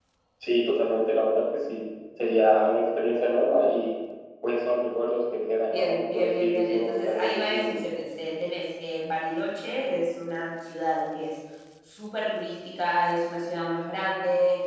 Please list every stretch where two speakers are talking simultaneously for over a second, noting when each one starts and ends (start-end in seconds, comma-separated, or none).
5.7-7.8